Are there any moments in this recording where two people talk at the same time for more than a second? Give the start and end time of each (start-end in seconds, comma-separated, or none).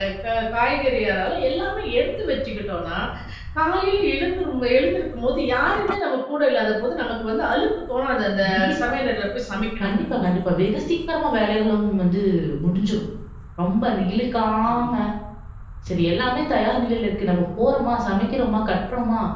none